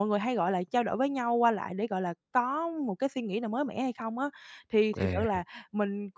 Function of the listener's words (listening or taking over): listening